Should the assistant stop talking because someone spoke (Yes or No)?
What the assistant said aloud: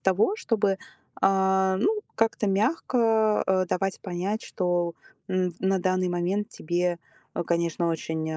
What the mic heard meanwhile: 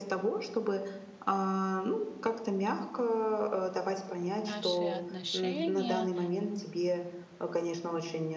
Yes